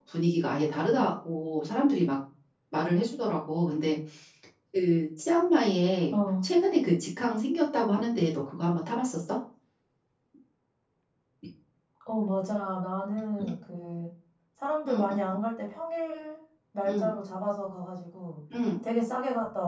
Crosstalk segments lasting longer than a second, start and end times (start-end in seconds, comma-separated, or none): none